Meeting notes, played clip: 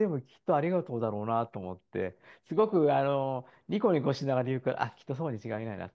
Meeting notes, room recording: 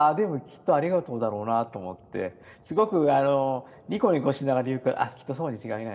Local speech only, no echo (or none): none